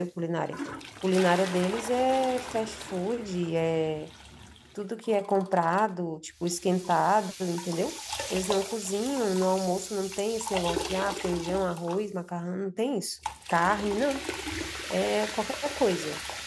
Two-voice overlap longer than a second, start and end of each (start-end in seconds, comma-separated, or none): none